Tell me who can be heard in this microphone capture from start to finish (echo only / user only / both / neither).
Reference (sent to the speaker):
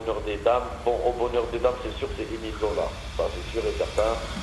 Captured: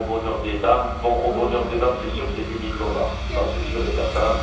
both